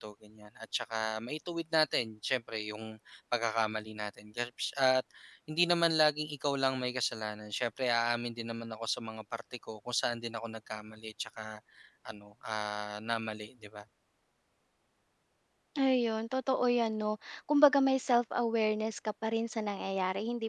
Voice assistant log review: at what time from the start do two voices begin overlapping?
none

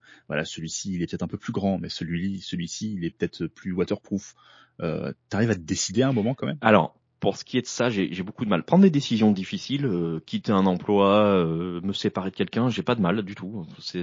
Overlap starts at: none

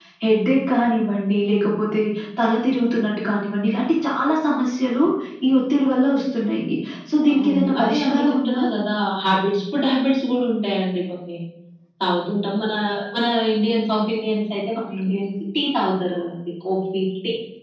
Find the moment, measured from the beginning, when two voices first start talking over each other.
7.3 s

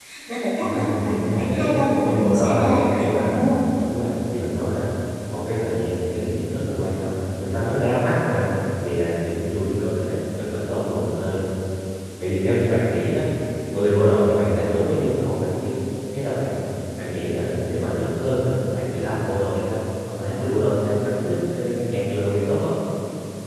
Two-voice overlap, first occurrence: 0.6 s

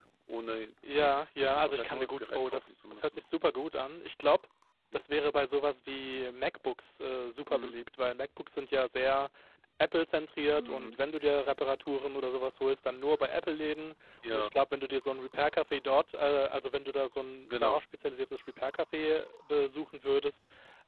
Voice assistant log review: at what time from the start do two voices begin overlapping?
0.9 s

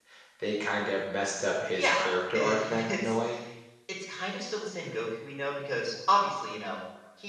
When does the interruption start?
1.7 s

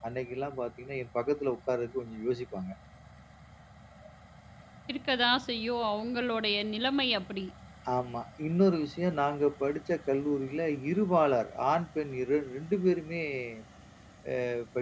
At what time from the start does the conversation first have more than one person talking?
none

